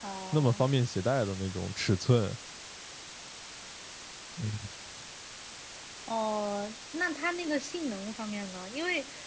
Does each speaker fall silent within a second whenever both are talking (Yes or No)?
Yes